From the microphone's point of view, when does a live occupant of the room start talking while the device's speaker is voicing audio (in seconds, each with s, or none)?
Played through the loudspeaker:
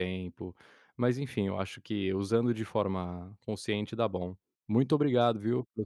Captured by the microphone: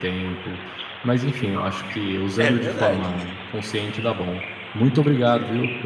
2.4 s